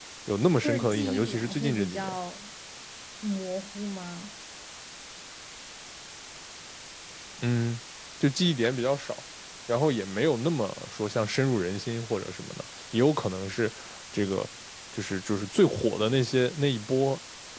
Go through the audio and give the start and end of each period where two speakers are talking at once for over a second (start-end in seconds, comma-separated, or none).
0.6-2.2